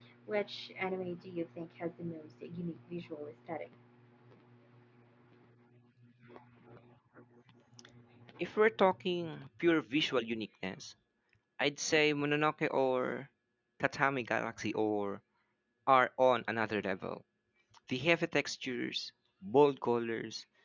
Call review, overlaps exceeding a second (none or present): none